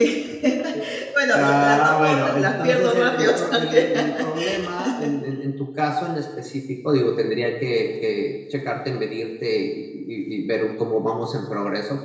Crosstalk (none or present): present